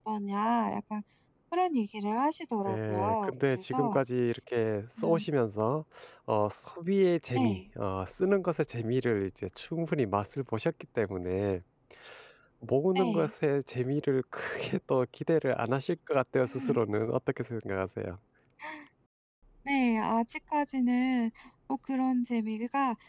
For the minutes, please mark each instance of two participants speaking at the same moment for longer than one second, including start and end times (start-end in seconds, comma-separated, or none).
2.7-4.0